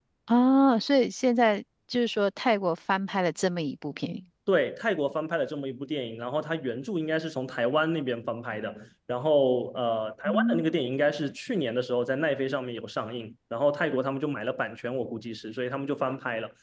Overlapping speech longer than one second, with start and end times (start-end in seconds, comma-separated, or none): none